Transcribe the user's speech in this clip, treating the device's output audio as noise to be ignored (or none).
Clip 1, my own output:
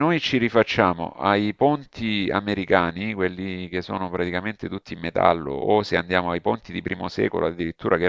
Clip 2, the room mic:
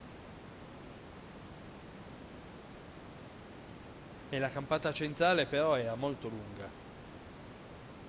E la campata centrale però era molto lunga.